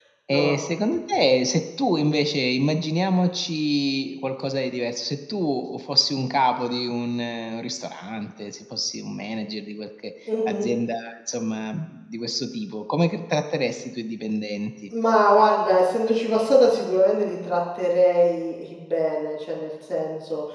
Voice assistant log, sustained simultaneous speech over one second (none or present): none